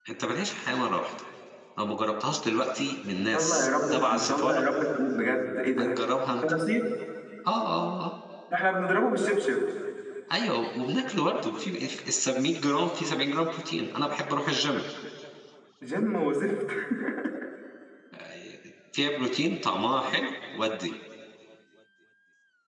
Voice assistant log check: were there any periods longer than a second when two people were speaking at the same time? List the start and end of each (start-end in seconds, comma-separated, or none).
3.2-4.6